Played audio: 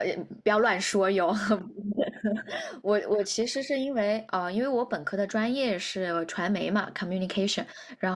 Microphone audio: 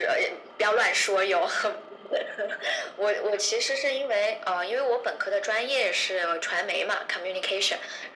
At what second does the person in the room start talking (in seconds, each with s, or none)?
none